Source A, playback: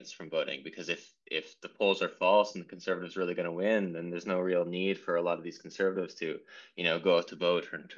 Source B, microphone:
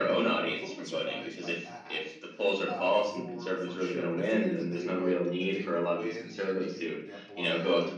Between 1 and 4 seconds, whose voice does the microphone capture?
both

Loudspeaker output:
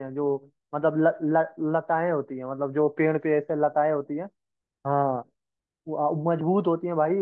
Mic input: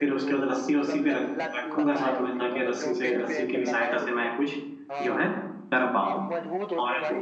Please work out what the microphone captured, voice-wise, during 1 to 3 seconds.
both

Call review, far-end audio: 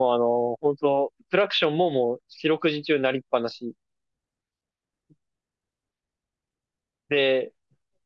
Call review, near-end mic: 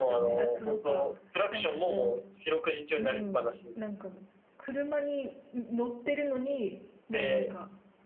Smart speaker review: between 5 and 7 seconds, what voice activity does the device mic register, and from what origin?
user only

